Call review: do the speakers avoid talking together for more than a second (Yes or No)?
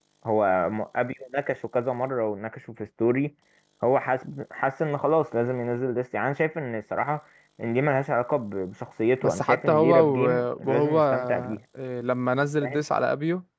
No